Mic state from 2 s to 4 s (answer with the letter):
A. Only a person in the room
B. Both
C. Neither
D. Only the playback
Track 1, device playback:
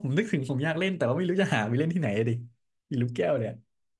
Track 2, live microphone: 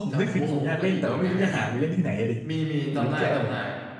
B